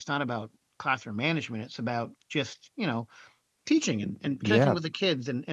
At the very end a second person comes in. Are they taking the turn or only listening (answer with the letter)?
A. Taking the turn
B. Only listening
B